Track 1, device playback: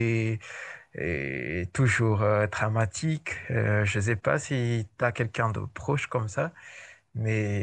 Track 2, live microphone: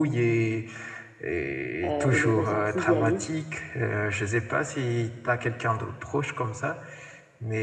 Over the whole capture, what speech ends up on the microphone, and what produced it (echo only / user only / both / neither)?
both